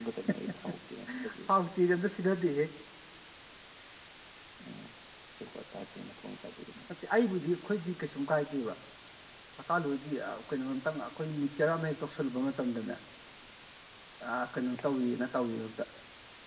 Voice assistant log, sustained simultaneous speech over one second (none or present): none